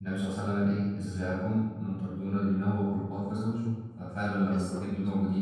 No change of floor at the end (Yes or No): Yes